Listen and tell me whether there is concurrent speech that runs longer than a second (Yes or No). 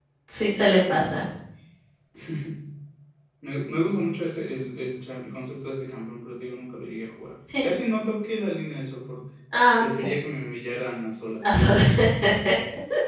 No